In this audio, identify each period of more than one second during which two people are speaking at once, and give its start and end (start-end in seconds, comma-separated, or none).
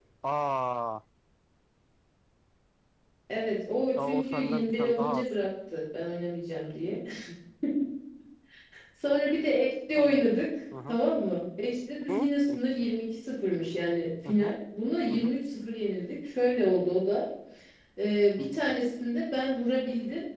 4.0-5.2